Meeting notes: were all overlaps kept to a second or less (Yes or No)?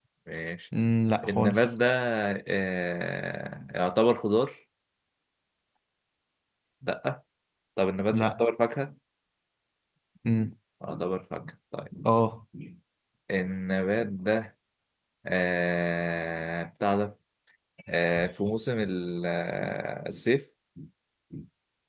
Yes